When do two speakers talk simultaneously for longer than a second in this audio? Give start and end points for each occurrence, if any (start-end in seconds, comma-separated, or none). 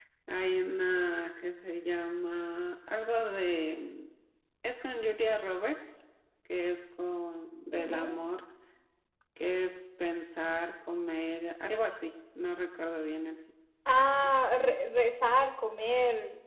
none